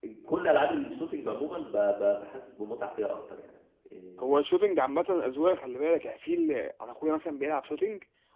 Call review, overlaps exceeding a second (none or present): none